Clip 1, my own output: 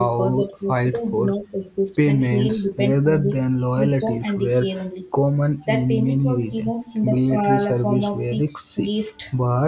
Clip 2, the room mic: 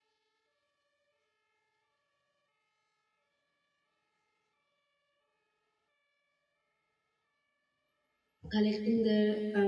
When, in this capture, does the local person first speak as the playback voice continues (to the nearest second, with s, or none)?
9 s